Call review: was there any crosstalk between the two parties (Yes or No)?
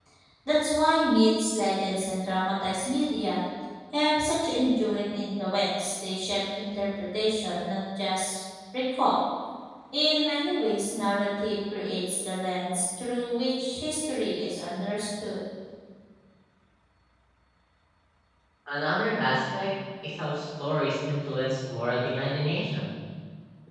No